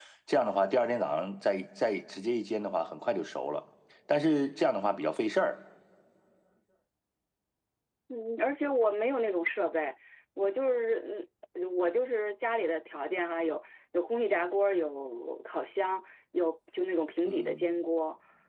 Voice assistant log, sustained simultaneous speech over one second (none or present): none